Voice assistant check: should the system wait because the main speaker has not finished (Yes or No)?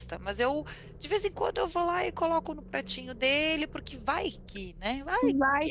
No